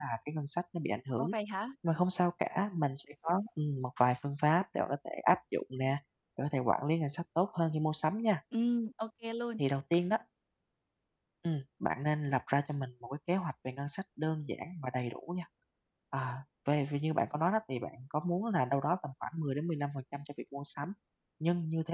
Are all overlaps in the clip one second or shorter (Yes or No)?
Yes